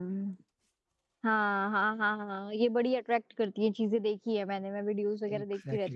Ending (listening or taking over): listening